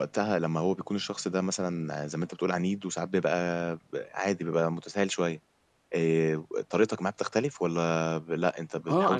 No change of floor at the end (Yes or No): No